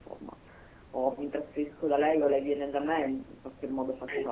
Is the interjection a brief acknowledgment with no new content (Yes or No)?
No